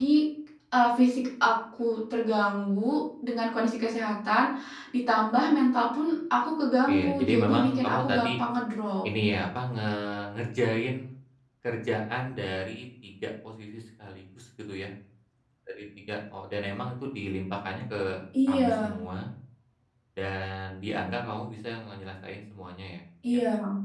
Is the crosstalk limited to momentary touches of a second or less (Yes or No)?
No